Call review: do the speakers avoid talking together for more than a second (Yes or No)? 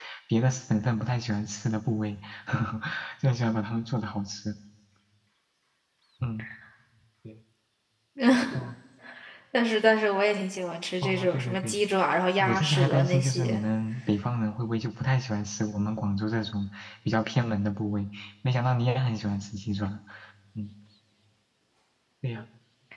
No